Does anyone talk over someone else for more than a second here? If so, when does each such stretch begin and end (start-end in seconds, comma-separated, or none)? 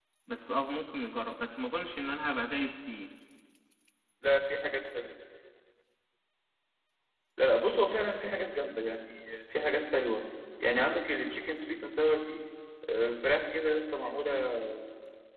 none